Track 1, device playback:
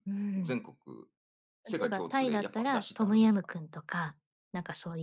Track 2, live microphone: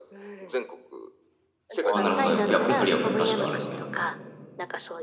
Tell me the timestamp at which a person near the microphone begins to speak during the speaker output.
1.9 s

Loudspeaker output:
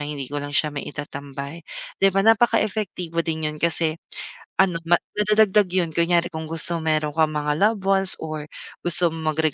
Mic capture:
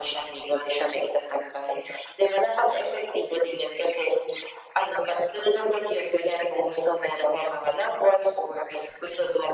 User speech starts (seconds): none

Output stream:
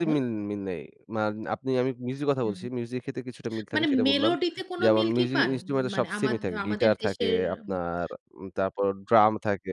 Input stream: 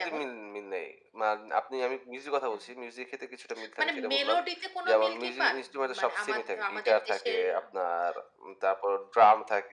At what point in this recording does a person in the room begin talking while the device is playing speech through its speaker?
none

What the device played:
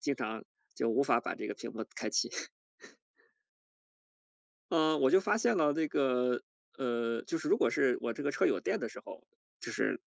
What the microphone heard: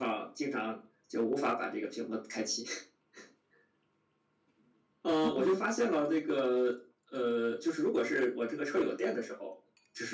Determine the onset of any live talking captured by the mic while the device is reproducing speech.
5.2 s

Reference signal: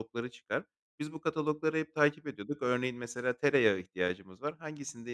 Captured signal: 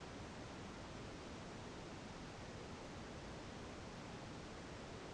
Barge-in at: none

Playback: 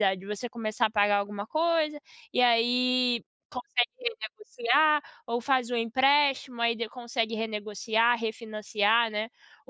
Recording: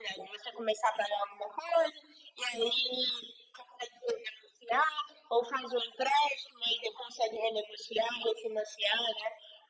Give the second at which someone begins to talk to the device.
none

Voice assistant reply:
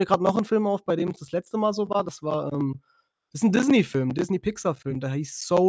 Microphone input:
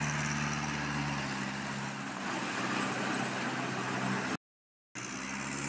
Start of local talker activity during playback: none

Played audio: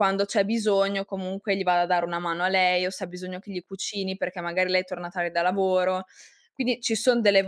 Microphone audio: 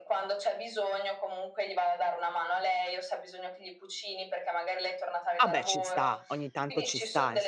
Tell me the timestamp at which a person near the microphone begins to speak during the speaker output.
5.4 s

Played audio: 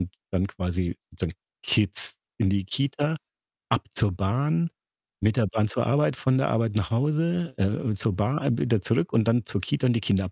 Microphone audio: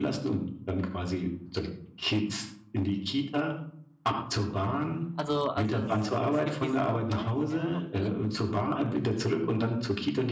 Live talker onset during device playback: 5.1 s

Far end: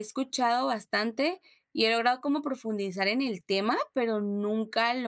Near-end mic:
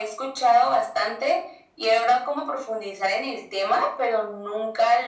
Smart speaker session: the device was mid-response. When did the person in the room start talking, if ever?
none

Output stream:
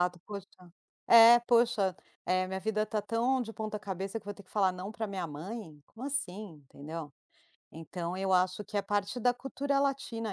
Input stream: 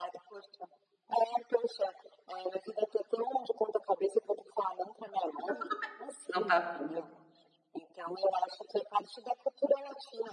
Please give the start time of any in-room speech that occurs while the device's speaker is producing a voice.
5.4 s

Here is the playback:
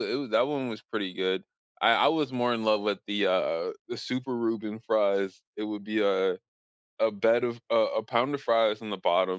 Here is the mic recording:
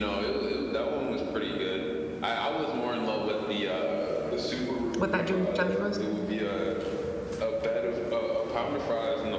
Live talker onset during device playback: 5.0 s

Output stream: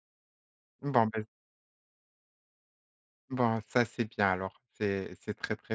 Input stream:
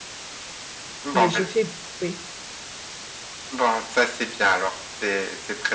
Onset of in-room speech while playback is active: 1.1 s

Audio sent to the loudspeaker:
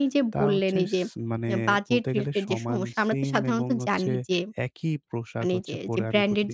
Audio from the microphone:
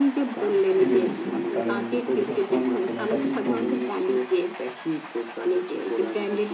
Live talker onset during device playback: 0.7 s

